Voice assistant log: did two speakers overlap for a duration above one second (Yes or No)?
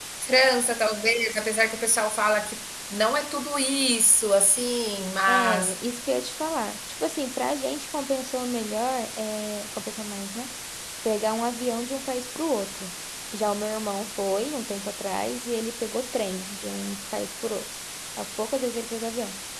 No